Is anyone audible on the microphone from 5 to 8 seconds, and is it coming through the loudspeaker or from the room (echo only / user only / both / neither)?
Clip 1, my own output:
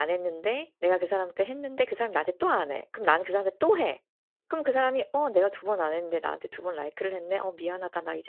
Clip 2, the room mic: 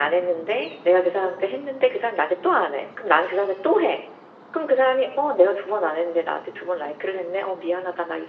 echo only